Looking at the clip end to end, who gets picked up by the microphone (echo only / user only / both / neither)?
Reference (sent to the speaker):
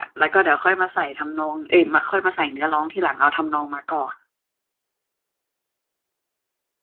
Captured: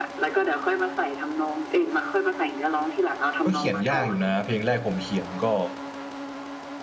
both